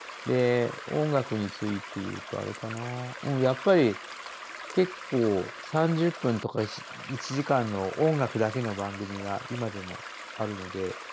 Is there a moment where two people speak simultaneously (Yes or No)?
No